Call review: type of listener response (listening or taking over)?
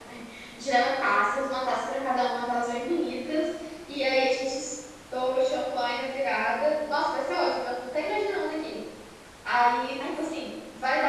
listening